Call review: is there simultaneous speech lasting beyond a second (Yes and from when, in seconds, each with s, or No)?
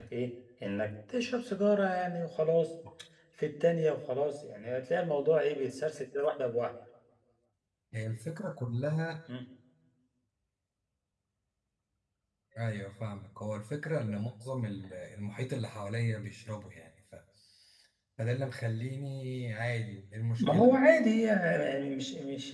No